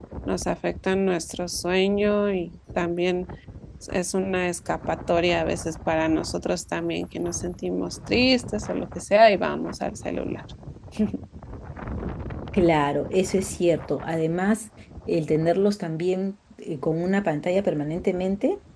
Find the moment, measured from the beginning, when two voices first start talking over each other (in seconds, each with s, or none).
none